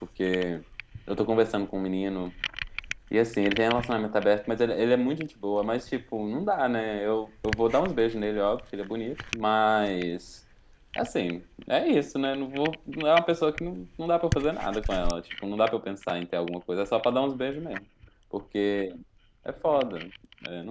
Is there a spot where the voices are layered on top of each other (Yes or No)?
No